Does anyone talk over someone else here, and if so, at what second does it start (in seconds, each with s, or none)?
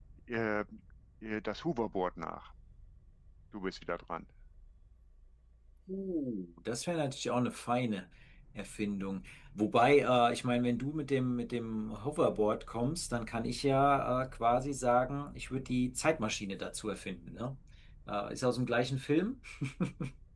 none